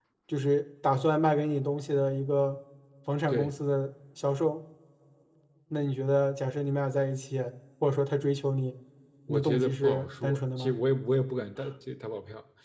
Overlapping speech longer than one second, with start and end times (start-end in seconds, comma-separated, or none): 9.3-10.8